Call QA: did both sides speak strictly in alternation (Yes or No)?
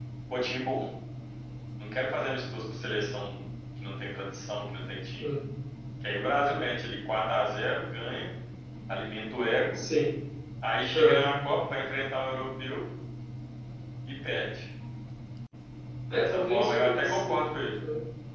No